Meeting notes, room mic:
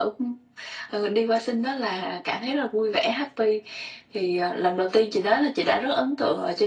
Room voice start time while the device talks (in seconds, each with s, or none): none